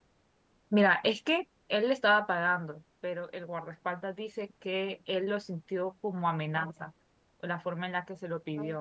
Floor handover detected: Yes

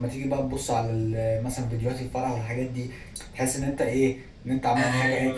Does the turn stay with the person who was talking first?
No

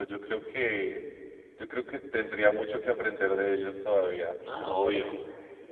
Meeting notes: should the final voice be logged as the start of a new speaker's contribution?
Yes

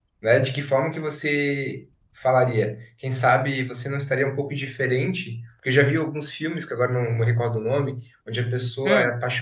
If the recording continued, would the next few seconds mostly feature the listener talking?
No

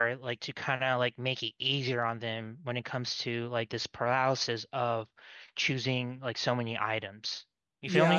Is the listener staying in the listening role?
No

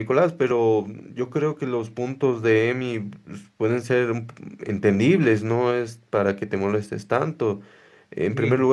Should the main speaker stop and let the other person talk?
No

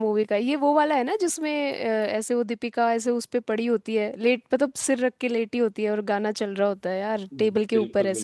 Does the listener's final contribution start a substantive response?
Yes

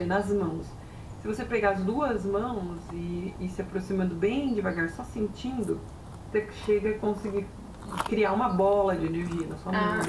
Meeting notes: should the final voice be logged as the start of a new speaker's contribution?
Yes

